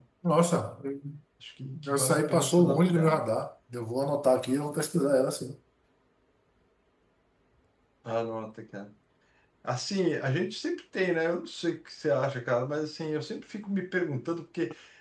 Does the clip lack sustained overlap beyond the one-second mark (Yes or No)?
No